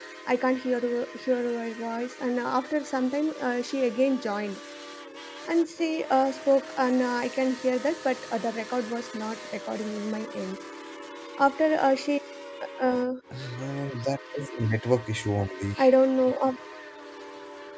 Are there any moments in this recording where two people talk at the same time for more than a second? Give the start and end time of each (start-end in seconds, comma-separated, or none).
none